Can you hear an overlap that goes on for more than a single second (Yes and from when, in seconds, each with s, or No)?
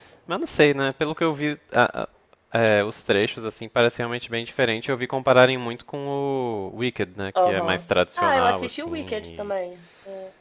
Yes, from 7.4 s